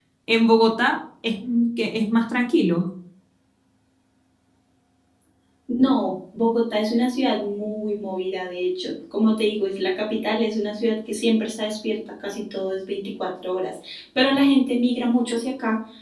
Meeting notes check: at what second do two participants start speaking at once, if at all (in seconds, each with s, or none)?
none